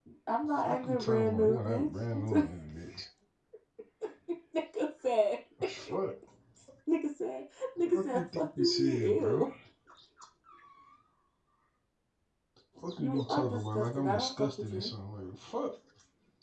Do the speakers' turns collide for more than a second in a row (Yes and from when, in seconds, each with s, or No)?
Yes, from 0.6 s